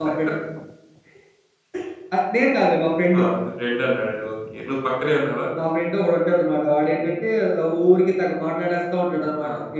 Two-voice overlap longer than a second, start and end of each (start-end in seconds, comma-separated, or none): none